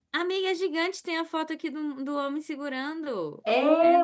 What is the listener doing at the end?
taking over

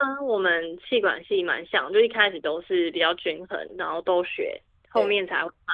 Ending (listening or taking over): listening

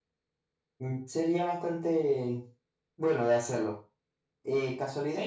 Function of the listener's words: listening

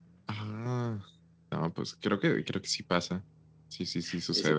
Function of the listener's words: taking over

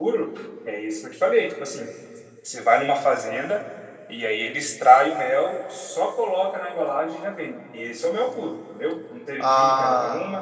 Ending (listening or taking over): listening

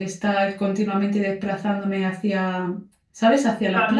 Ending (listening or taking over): taking over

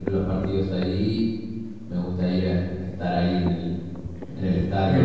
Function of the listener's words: taking over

